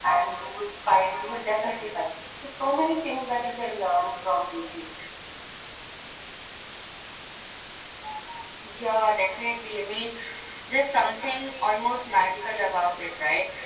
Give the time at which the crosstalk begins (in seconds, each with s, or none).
none